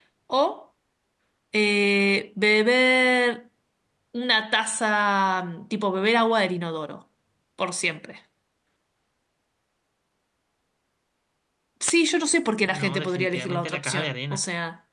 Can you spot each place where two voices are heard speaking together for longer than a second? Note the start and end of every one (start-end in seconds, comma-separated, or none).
12.6-14.4